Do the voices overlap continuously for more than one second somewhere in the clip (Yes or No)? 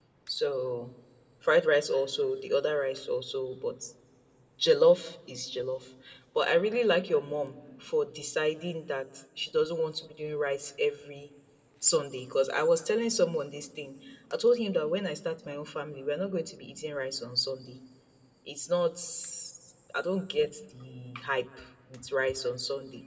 No